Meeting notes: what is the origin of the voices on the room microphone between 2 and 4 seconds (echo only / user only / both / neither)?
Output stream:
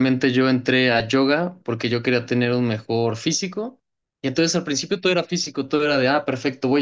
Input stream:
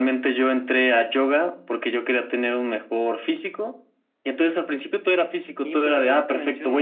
echo only